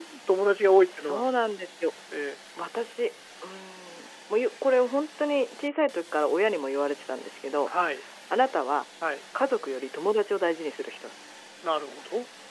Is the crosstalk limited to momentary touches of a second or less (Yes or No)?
Yes